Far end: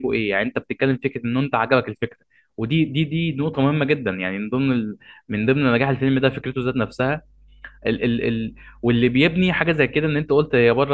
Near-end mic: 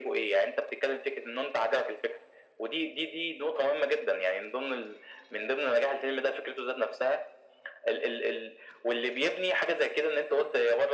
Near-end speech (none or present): none